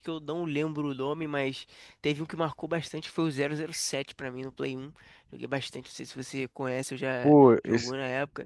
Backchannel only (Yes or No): No